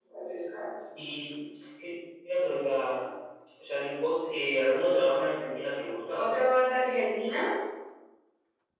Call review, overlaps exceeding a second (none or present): none